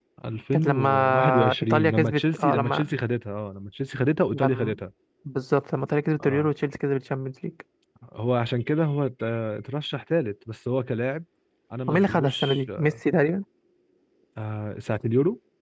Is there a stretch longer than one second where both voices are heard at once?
Yes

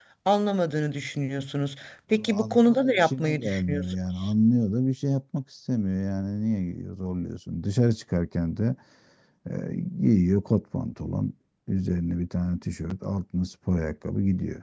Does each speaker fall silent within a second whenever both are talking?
No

